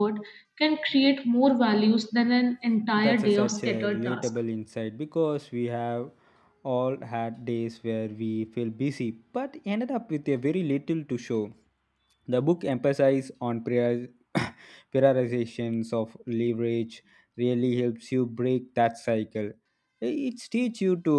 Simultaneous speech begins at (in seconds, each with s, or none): 3.0 s